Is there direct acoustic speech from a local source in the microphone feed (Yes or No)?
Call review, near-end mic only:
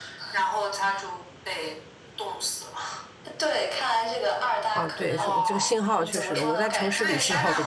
Yes